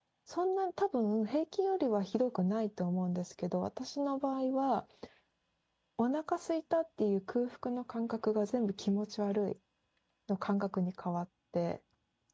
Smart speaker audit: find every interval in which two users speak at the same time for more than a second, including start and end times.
none

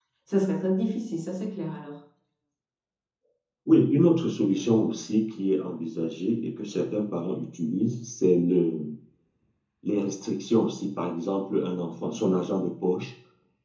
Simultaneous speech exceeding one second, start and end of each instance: none

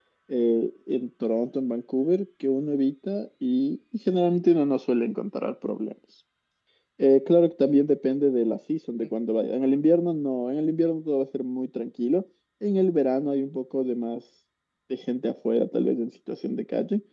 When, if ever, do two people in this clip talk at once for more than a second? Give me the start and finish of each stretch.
none

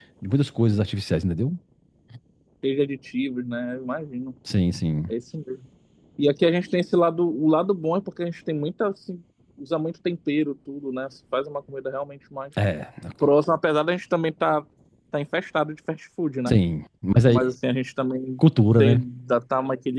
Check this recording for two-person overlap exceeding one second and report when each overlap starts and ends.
none

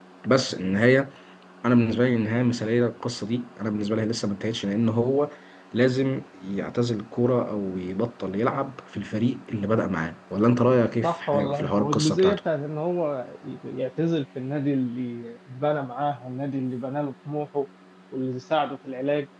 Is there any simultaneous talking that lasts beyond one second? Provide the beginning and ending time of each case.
11.0-12.4

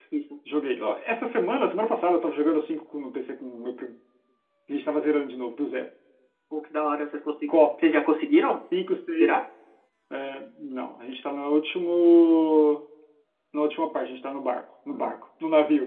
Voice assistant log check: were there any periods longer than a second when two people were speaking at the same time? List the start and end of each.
none

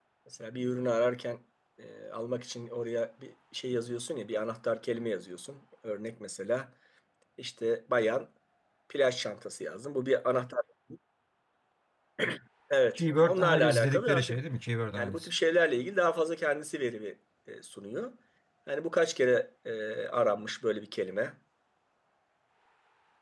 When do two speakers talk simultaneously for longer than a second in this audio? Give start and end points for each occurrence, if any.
12.9-14.4

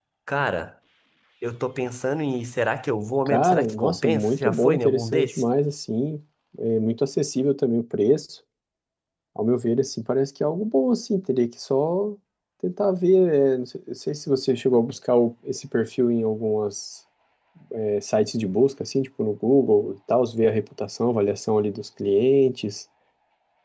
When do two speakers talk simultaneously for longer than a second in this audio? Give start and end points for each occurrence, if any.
3.3-5.4

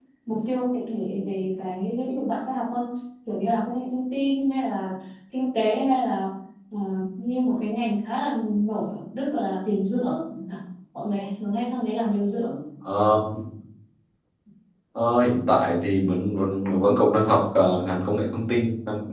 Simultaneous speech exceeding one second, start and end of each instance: none

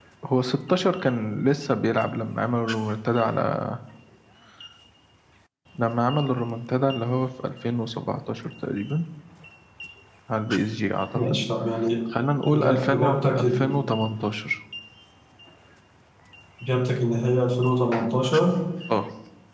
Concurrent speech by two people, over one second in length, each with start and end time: 12.5-13.7

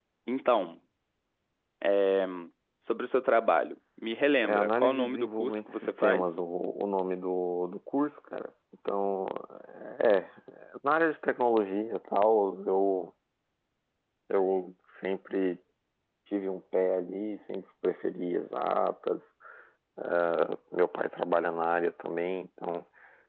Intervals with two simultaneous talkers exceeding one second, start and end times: 4.4-6.2

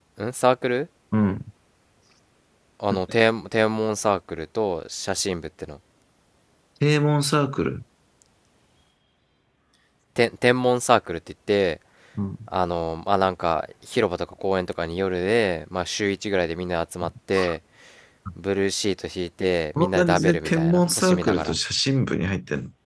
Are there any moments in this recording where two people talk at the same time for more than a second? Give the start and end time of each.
19.8-21.6

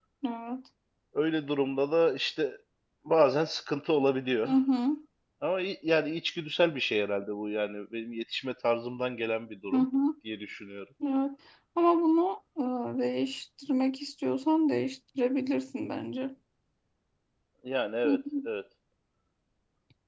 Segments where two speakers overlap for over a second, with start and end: none

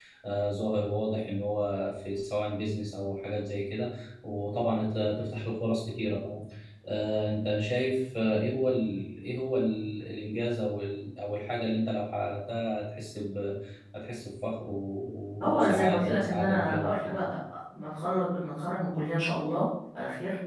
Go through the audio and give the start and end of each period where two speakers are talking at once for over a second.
15.4-17.1

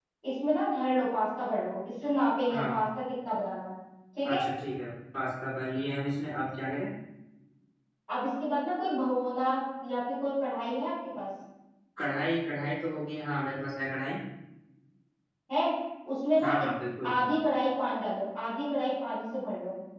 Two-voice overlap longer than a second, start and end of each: none

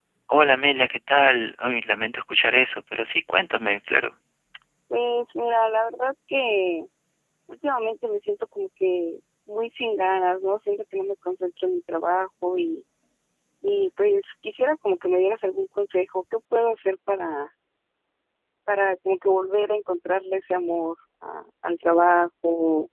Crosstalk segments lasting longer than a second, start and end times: none

